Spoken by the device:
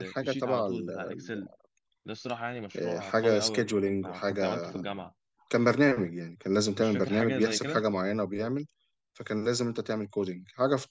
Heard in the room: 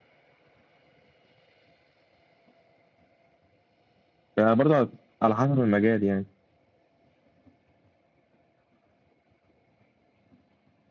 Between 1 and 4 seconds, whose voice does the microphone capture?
neither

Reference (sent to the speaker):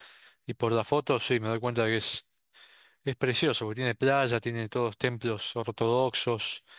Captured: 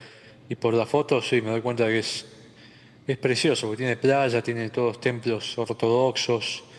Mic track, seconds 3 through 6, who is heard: echo only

